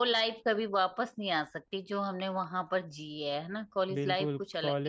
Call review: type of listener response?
taking over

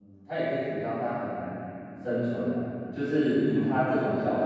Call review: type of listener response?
listening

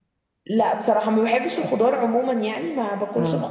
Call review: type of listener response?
listening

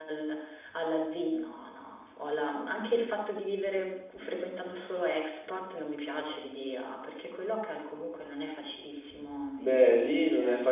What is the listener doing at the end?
taking over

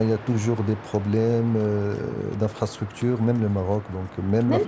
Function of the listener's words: taking over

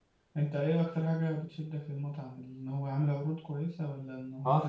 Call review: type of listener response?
taking over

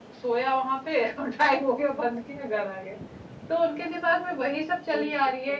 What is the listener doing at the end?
listening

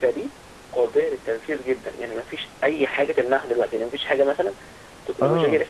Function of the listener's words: listening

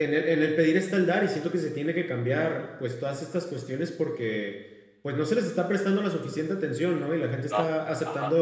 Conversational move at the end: listening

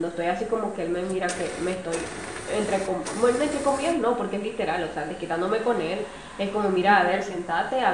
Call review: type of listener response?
listening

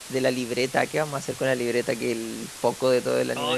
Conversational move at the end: taking over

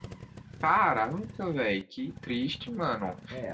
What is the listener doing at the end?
taking over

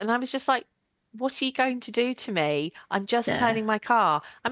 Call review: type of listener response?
listening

